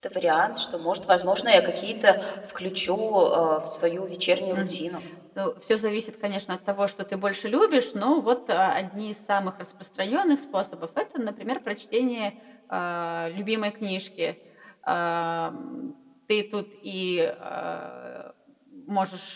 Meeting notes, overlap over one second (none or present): none